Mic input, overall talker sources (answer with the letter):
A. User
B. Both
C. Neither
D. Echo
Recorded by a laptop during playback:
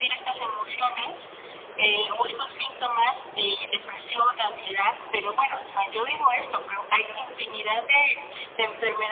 D